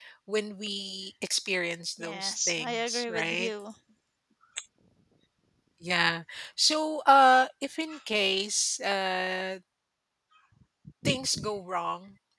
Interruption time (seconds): 2 s

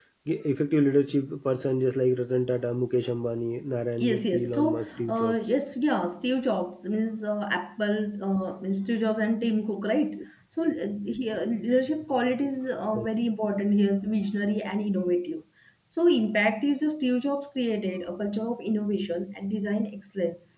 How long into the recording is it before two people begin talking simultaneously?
4 s

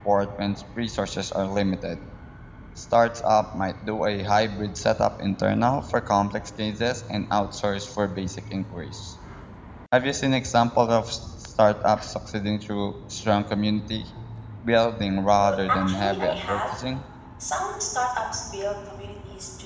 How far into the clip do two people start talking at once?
15 s

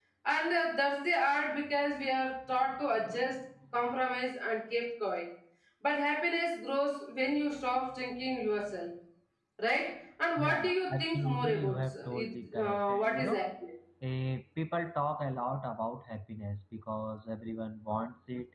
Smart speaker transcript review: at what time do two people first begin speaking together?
10 s

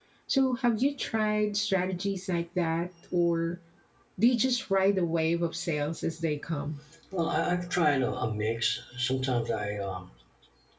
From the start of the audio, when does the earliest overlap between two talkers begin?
none

